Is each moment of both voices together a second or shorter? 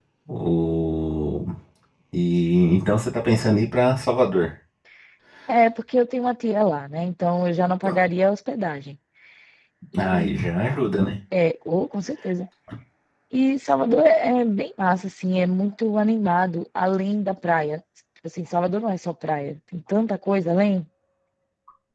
Yes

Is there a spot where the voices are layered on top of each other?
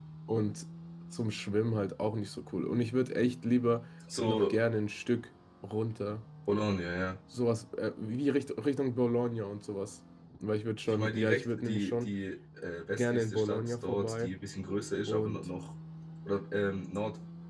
Yes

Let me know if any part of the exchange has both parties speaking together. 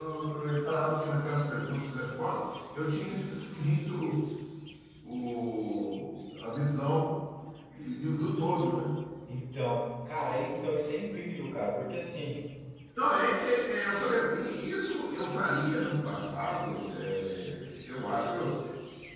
No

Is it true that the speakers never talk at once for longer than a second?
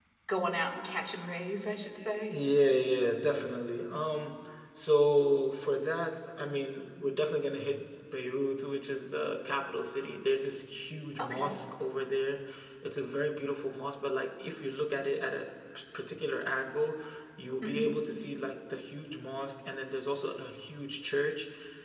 Yes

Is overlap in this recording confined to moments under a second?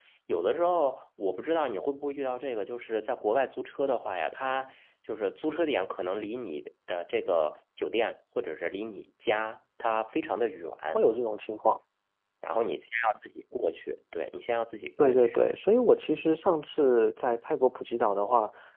Yes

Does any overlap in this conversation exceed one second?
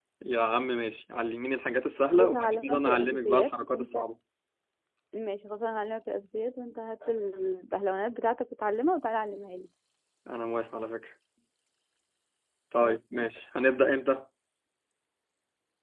Yes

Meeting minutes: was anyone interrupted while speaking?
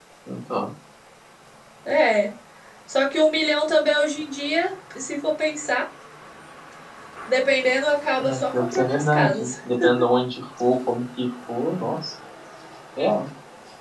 Yes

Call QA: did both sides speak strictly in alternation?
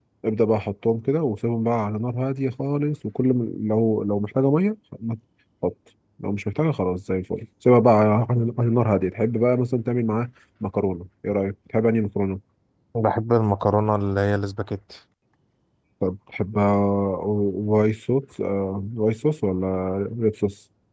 Yes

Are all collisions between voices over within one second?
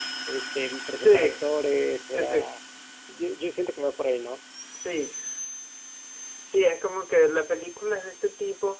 Yes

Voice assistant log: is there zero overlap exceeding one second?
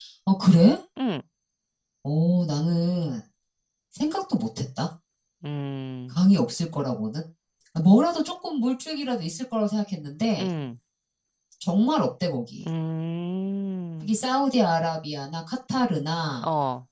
Yes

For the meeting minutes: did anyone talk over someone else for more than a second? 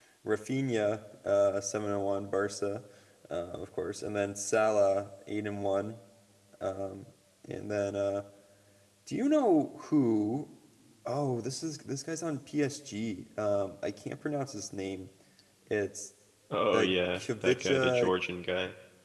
Yes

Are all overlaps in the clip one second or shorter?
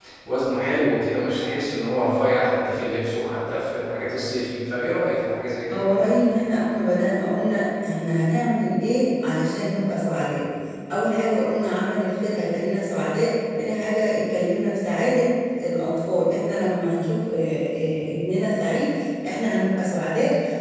Yes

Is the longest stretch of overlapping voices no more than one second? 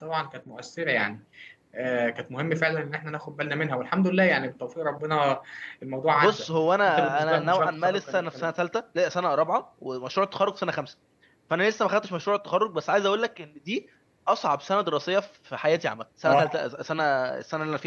No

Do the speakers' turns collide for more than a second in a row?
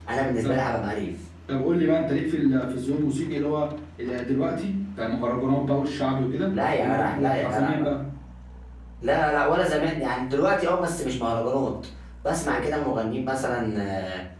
Yes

